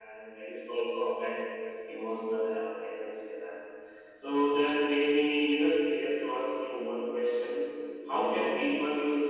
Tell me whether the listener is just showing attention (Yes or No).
Yes